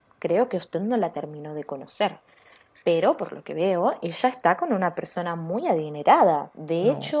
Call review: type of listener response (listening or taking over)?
listening